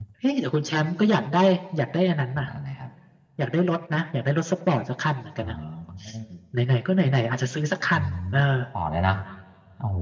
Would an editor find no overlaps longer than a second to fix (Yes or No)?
Yes